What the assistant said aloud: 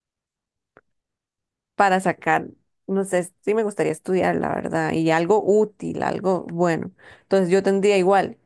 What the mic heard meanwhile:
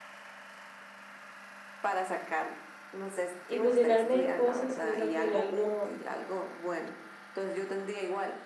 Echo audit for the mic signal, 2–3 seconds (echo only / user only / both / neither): echo only